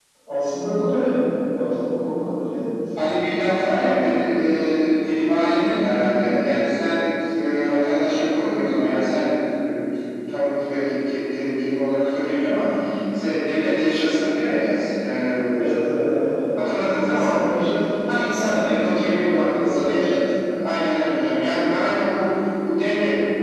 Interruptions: present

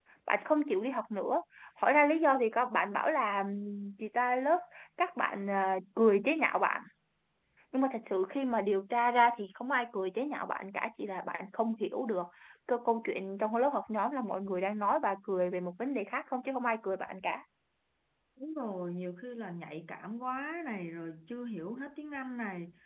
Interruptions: none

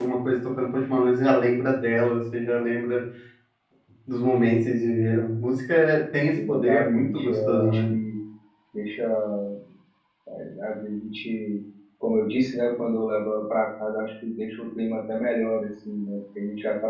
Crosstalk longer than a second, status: present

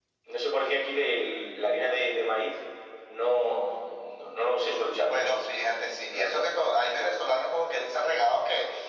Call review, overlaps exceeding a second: none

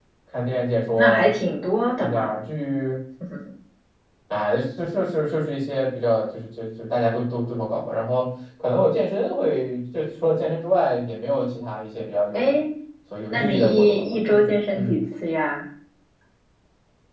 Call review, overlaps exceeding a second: present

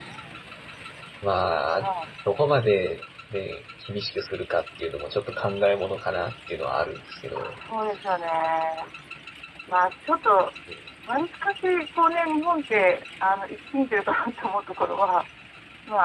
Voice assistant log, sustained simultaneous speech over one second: none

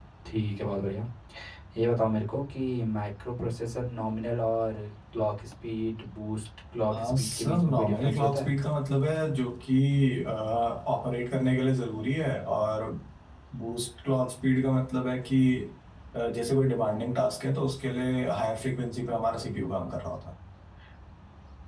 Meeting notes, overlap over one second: present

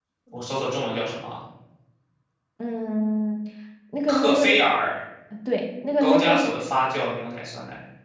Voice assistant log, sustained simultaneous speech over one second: none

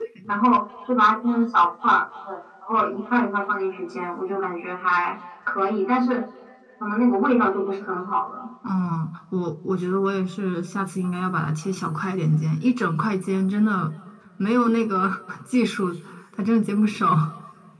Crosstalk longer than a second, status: none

